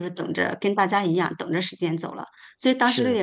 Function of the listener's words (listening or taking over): listening